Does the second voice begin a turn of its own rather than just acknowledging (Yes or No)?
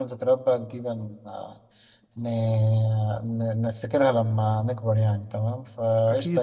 No